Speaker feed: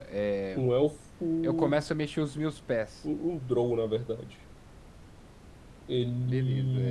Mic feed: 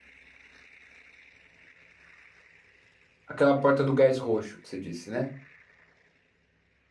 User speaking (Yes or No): Yes